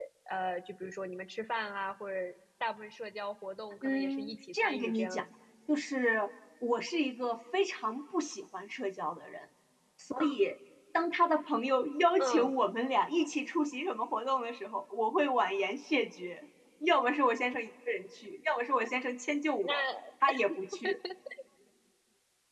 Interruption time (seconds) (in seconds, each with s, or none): 3.8 s